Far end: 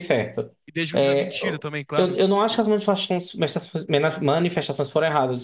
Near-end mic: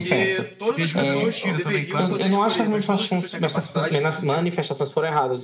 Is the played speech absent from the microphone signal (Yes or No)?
No